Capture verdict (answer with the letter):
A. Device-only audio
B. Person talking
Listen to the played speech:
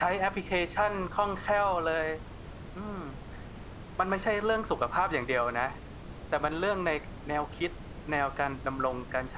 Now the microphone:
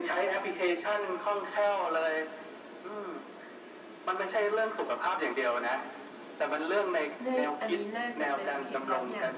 B